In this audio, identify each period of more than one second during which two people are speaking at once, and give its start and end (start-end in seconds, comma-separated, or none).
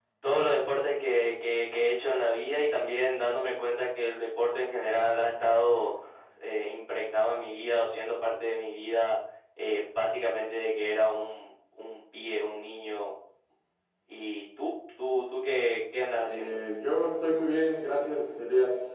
none